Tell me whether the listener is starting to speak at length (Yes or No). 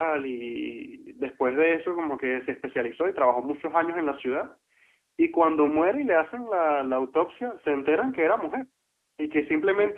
No